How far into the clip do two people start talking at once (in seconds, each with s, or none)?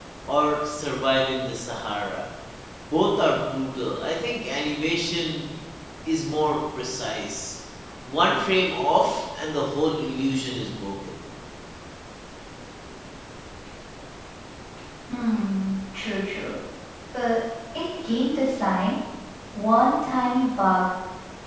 none